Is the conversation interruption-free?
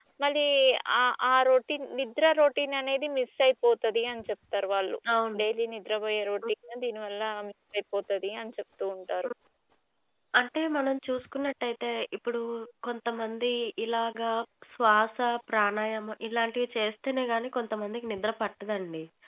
Yes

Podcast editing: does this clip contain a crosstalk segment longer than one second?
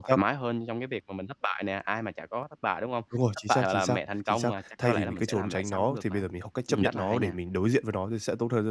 Yes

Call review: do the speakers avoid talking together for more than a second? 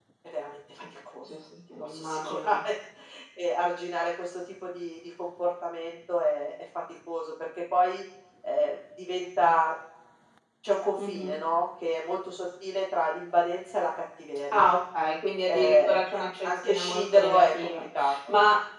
No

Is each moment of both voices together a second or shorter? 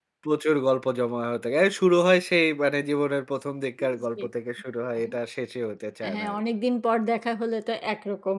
Yes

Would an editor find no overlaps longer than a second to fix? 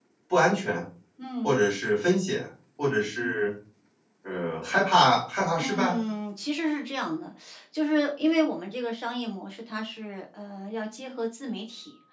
Yes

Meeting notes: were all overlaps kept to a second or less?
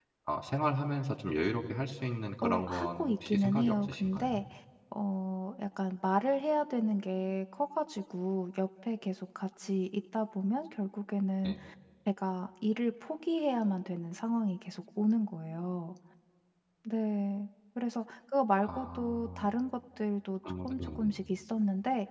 No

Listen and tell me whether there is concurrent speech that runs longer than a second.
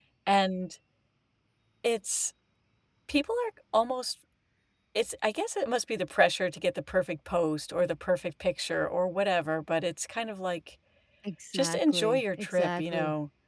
Yes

